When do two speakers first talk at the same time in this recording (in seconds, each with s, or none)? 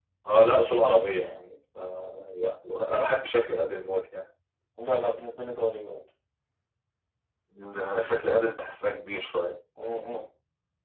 none